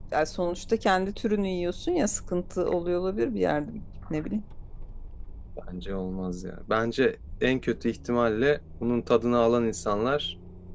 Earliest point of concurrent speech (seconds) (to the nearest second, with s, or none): none